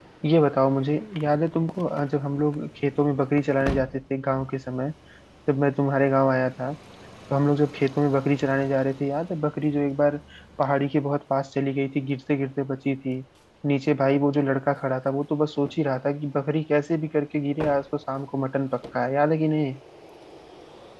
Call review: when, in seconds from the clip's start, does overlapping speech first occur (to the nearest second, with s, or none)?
none